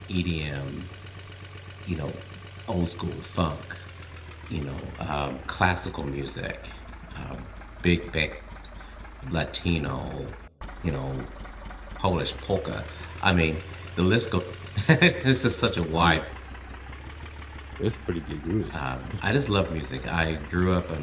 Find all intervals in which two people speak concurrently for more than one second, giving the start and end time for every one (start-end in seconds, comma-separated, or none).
none